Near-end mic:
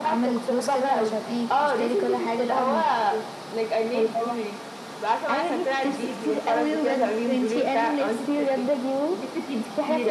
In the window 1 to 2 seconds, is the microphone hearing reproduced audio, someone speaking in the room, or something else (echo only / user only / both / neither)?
echo only